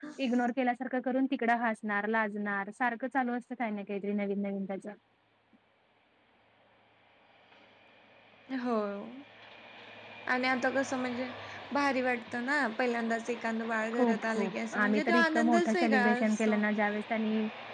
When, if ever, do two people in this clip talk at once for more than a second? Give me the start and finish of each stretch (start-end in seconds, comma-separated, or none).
13.9-16.6